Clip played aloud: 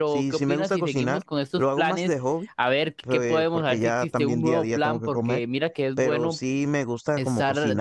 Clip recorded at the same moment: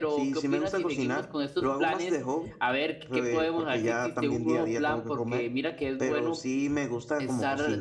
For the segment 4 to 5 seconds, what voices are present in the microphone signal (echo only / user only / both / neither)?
echo only